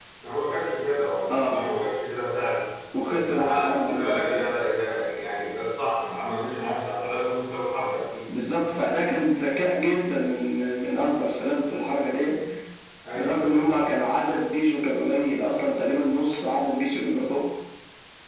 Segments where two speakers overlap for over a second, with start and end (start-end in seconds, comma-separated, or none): 3.1-4.4